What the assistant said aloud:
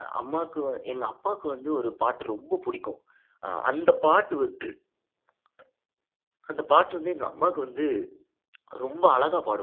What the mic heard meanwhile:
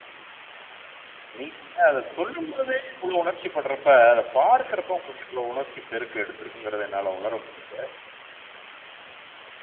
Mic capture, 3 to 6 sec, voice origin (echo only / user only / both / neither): user only